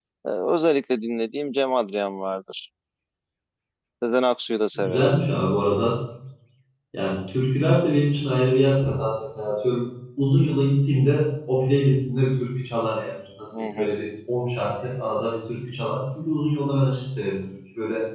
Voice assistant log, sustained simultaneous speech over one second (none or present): none